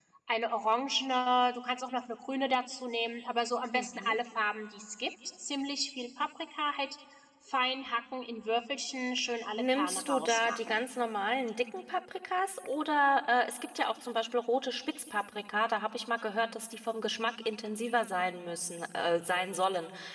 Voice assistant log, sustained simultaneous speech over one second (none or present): present